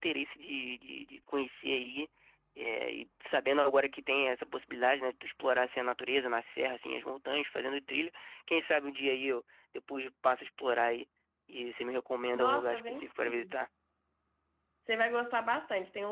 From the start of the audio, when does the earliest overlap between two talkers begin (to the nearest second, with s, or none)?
12 s